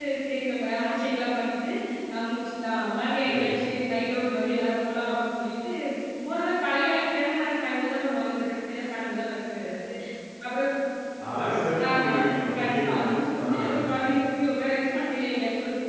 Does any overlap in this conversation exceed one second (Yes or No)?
No